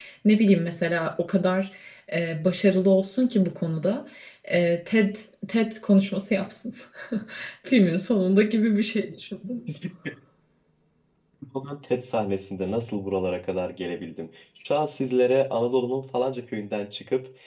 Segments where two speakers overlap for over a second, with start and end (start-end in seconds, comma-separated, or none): none